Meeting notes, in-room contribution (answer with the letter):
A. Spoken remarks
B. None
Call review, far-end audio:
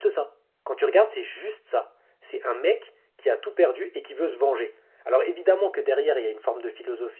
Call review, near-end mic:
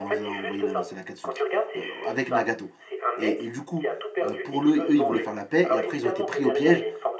A